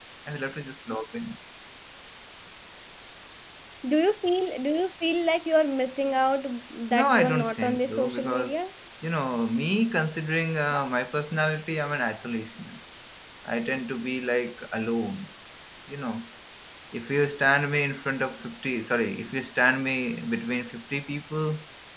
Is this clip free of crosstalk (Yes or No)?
No